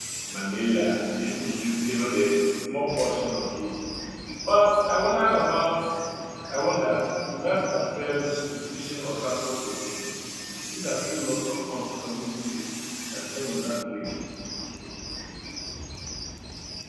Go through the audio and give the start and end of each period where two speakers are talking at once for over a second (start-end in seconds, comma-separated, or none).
none